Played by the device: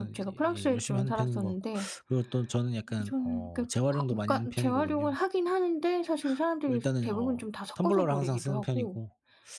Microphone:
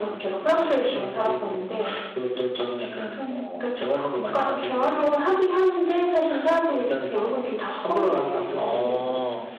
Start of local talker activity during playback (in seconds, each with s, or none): 8.5 s